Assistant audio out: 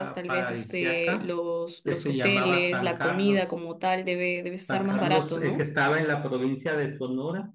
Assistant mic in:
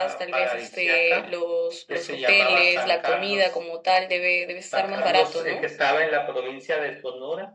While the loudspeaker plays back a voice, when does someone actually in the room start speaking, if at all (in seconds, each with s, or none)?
none